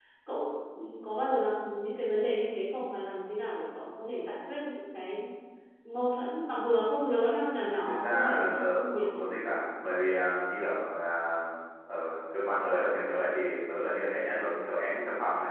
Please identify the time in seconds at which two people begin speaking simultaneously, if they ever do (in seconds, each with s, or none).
7.7 s